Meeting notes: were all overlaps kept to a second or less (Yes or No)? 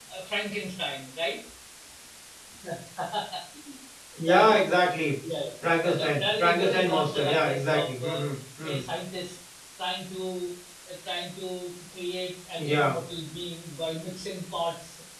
No